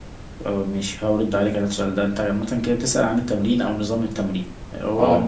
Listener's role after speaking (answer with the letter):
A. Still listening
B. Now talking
A